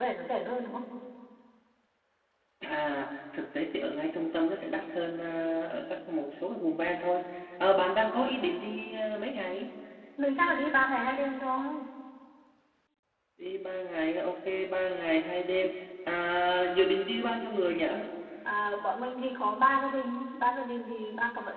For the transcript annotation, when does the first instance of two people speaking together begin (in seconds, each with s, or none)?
none